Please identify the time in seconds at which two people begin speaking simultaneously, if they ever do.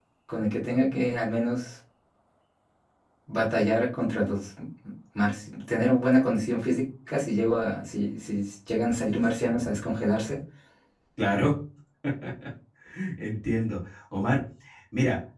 none

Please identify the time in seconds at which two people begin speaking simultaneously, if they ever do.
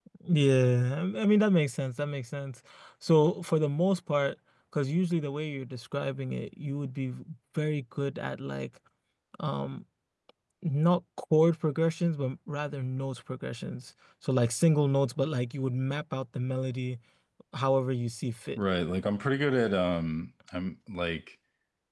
none

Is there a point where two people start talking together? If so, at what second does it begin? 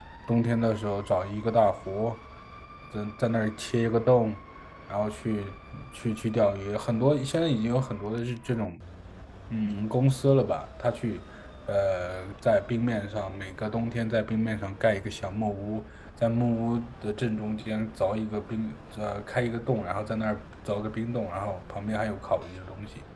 none

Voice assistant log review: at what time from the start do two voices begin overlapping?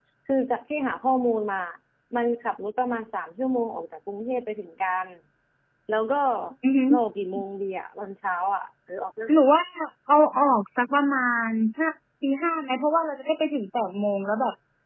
none

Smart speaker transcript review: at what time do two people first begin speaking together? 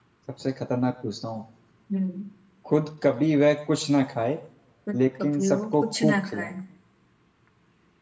5 s

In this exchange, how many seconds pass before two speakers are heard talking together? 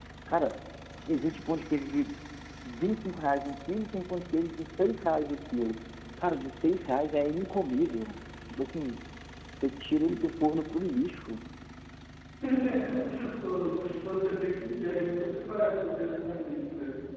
none

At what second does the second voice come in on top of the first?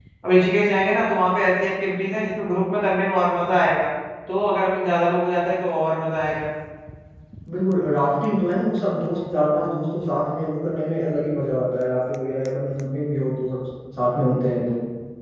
none

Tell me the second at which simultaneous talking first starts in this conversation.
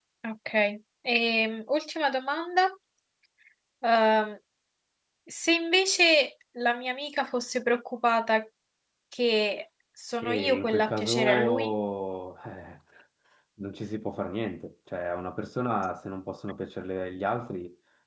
10 s

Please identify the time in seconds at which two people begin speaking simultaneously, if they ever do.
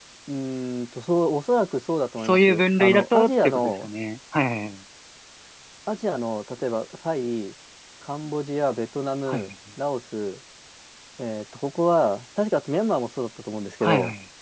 2 s

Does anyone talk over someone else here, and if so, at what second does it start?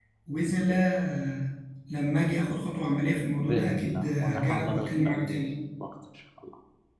3 s

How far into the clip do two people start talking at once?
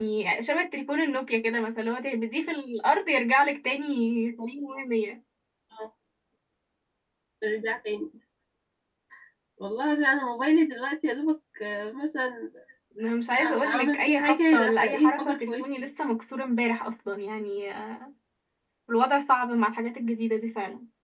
13 s

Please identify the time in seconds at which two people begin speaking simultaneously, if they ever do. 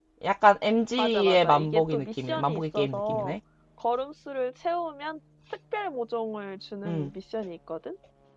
1 s

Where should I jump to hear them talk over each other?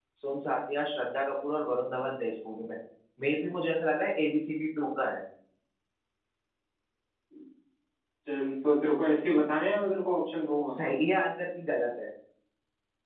none

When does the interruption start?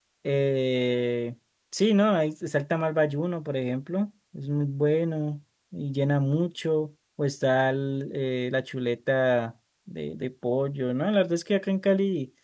none

